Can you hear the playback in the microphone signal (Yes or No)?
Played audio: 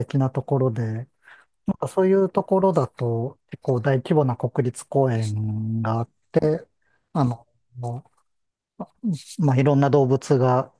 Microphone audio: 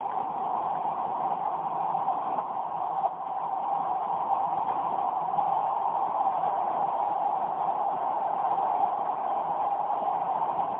No